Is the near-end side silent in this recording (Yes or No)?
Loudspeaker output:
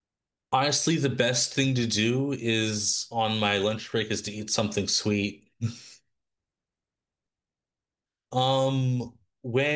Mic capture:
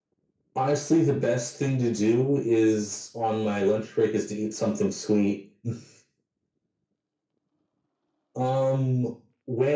Yes